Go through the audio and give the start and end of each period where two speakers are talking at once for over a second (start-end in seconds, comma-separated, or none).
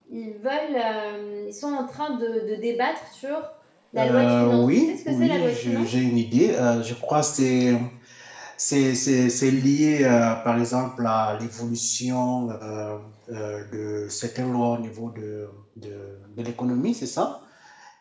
4.0-6.1